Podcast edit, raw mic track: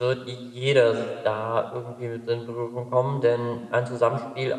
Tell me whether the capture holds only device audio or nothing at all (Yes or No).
No